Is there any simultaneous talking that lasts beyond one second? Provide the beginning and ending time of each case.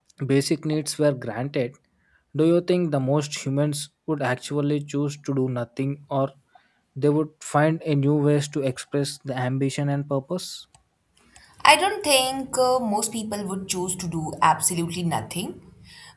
none

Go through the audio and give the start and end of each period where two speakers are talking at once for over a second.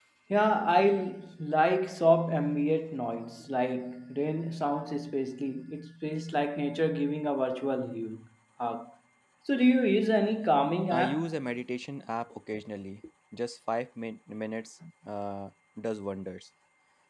none

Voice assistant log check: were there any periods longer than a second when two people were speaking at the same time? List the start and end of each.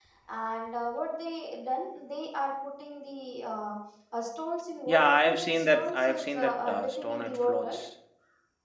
4.9-7.8

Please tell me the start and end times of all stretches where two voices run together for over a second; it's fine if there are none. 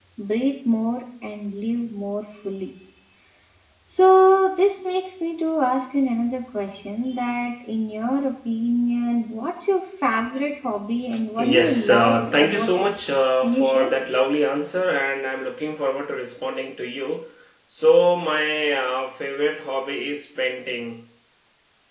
11.4-12.7

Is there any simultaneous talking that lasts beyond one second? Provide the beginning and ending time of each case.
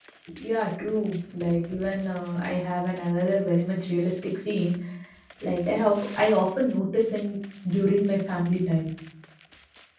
none

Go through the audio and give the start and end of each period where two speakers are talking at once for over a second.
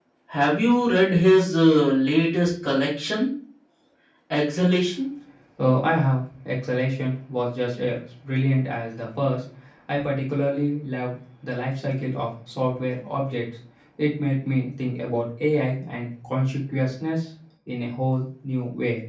none

